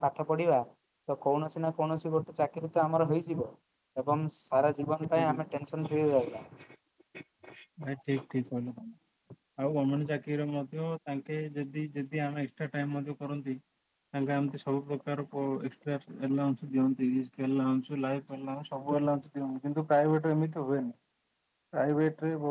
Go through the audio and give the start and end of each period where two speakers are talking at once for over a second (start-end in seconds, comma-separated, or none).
none